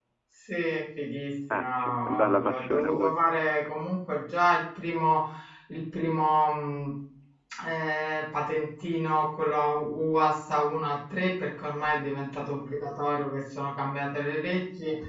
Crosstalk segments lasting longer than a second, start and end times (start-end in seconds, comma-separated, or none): 1.5-3.2